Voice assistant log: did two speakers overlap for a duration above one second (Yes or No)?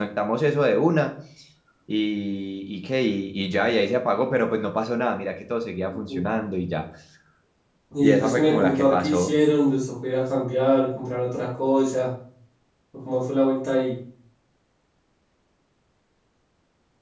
Yes